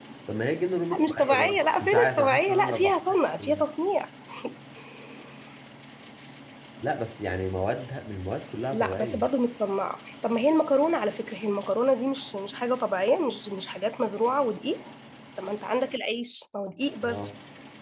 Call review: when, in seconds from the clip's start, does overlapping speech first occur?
0.9 s

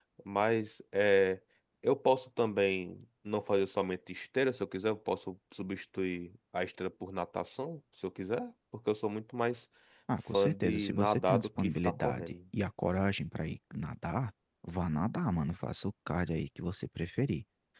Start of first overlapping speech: 10.3 s

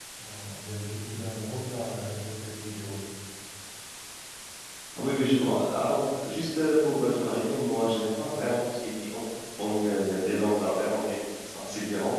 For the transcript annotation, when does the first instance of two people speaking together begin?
none

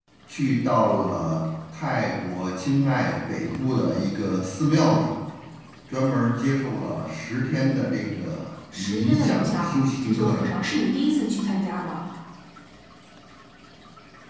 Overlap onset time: 8.7 s

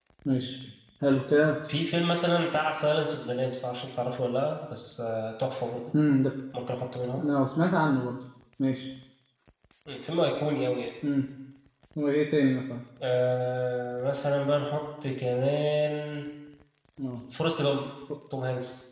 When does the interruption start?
none

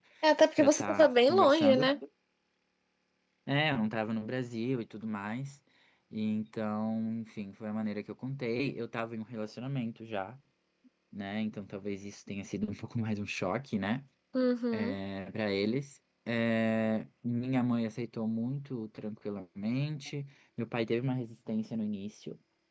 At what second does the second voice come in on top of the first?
0.6 s

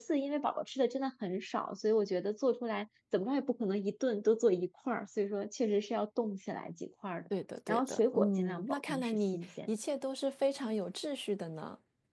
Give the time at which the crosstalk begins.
7.7 s

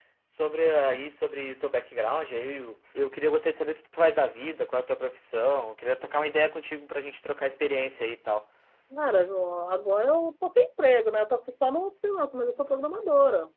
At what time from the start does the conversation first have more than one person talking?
none

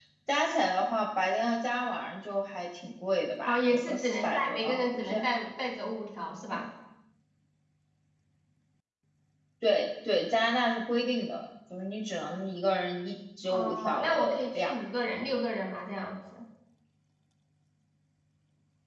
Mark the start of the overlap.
3.4 s

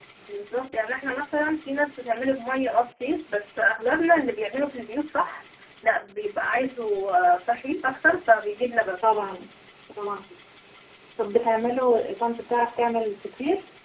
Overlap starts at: none

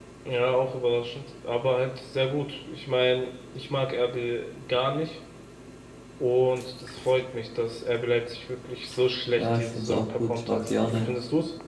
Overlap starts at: 9.4 s

